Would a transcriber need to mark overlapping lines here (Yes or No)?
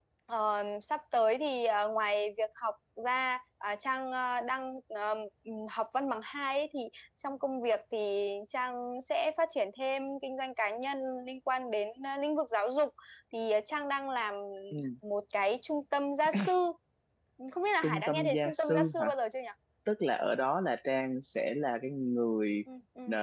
Yes